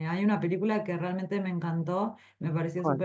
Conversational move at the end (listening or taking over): listening